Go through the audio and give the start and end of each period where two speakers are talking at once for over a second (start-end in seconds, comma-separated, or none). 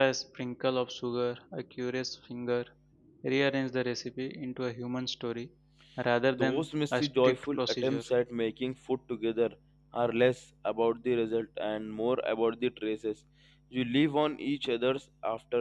6.4-8.0